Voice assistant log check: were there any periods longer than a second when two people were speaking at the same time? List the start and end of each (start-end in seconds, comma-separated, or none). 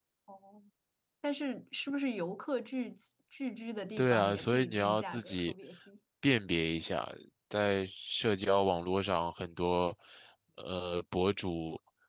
4.0-5.5